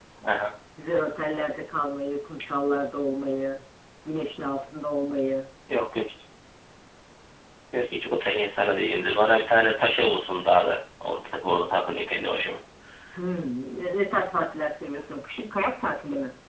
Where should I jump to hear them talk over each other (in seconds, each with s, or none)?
none